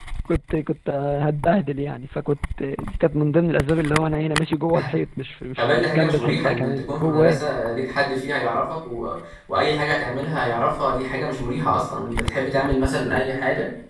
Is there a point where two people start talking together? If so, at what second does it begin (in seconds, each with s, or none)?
5.6 s